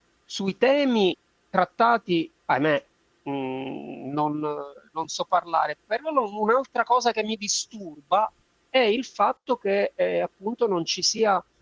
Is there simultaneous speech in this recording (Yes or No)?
No